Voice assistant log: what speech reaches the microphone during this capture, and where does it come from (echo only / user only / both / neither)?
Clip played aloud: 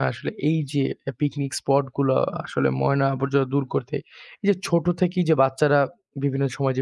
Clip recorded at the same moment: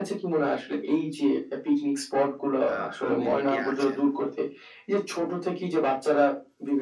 both